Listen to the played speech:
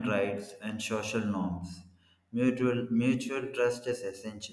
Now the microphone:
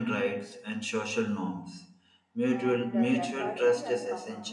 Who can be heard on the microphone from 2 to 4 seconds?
both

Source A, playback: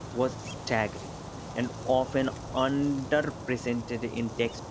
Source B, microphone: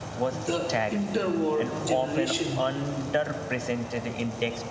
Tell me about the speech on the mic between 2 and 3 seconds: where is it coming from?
both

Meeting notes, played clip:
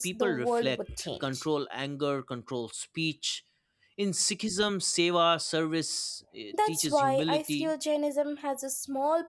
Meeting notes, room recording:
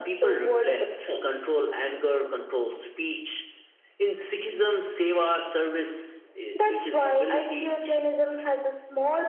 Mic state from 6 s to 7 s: echo only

